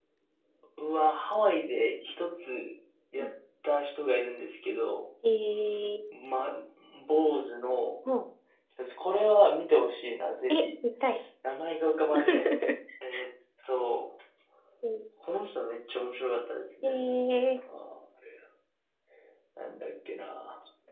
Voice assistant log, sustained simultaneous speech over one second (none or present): none